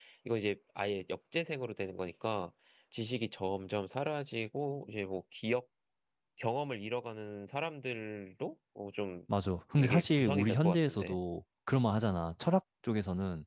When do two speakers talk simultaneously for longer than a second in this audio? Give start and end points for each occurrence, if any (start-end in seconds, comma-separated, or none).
9.8-11.2